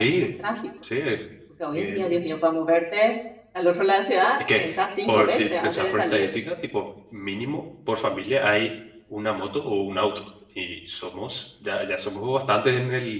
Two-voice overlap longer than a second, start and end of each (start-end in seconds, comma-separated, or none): 5.1-6.3